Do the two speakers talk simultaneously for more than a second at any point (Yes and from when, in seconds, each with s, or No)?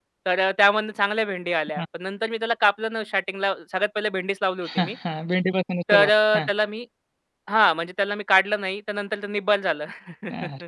No